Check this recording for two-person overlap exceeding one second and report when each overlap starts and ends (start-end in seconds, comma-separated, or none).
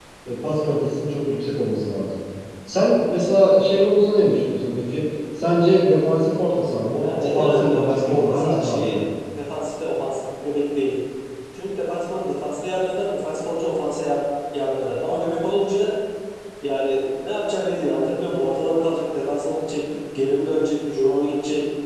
7.0-9.0